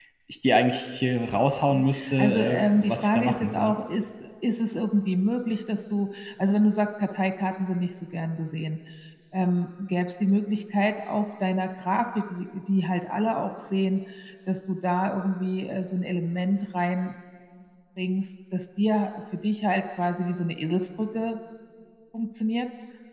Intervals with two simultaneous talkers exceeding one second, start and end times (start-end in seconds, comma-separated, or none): 1.7-3.7